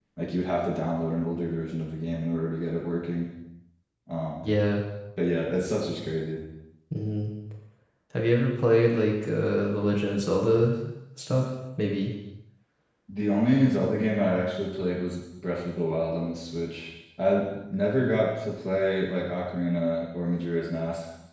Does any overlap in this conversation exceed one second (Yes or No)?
No